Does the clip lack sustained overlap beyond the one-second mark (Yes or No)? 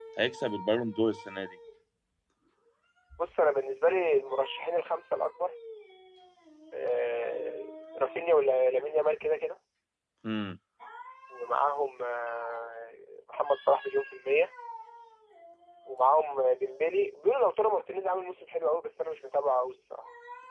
Yes